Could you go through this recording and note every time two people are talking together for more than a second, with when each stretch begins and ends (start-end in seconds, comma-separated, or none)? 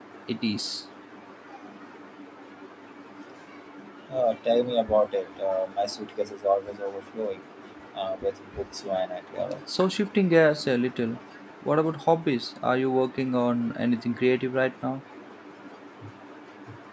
none